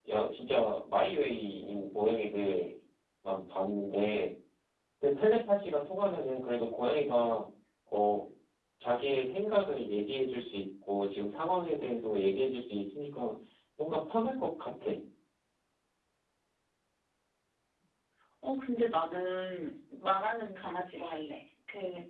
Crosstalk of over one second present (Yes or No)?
No